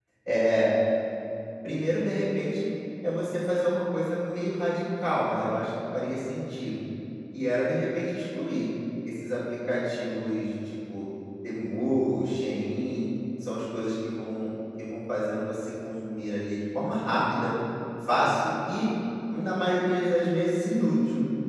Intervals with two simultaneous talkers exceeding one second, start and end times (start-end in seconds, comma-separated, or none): none